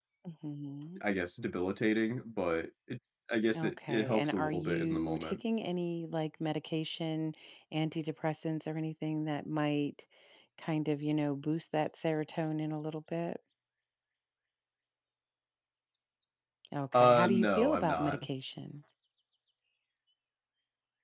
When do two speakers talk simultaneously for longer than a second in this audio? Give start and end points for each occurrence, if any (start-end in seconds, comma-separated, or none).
3.5-5.4, 16.9-18.2